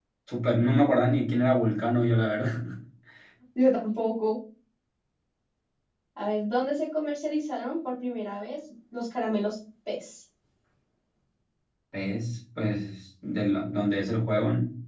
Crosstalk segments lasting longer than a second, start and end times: none

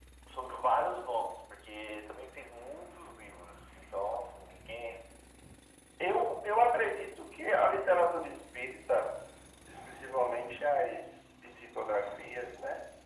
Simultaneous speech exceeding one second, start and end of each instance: none

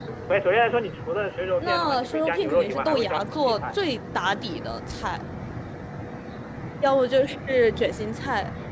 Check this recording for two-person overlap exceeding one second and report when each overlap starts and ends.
1.6-3.8

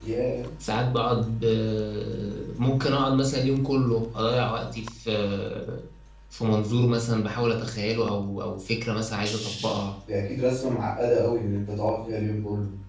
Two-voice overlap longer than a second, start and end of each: none

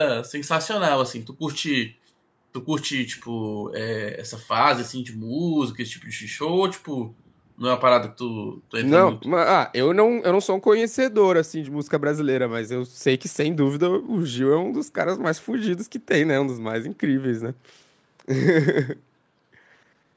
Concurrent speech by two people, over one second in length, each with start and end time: none

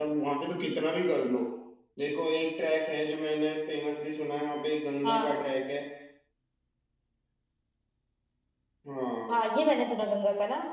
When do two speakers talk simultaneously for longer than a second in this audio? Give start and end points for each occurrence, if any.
none

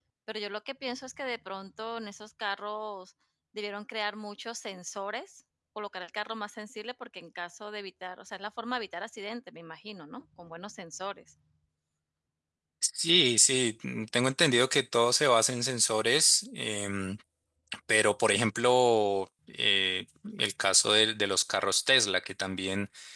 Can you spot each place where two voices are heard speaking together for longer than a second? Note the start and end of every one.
none

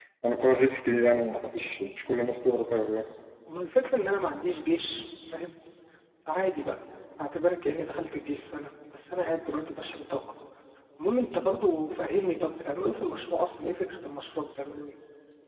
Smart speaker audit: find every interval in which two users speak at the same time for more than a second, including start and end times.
none

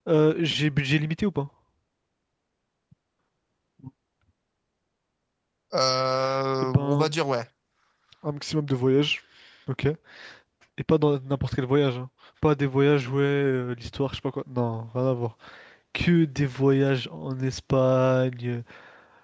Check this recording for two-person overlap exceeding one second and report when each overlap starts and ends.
none

